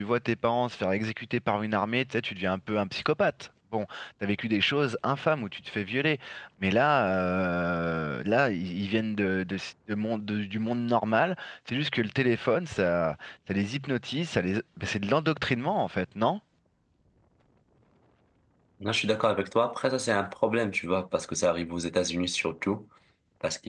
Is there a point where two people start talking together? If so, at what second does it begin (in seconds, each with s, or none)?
none